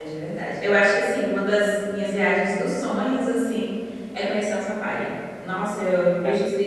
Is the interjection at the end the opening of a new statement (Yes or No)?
No